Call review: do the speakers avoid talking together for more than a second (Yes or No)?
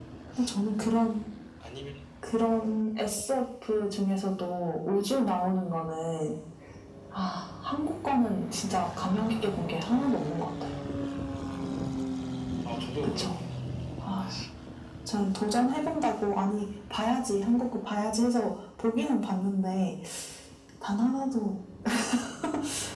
Yes